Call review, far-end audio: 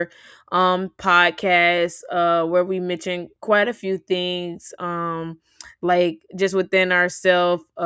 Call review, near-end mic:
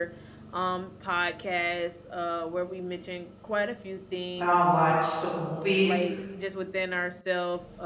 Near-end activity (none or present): present